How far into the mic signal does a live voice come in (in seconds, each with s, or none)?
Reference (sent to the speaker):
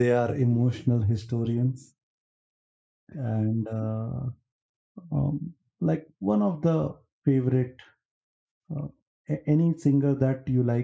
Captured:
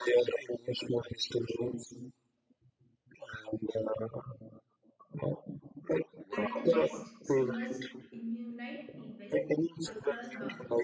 6.3 s